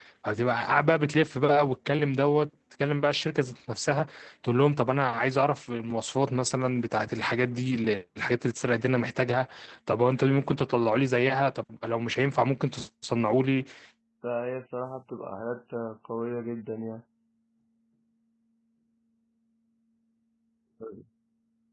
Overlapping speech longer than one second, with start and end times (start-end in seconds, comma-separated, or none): none